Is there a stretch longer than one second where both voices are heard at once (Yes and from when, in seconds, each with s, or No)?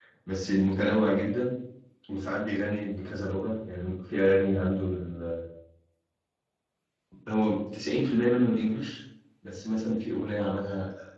No